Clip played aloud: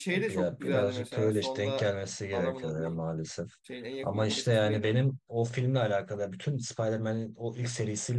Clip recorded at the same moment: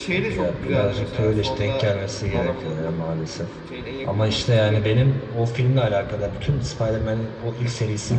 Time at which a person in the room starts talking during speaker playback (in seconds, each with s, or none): none